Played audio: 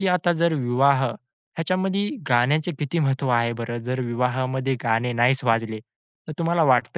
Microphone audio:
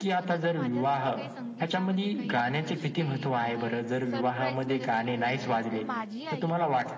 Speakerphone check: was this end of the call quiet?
No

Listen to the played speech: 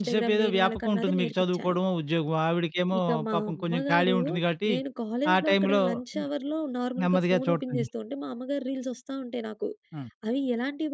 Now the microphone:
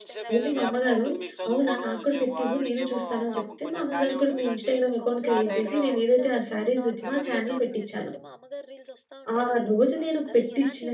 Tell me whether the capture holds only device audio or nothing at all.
No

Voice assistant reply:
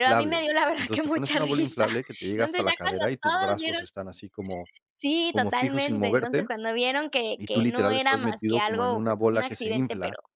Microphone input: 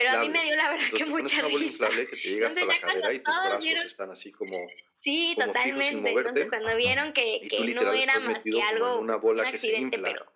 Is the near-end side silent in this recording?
No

